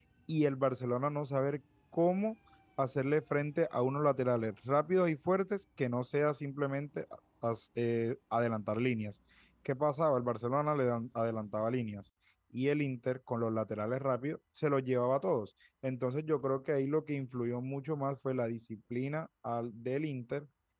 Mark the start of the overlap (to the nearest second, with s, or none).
none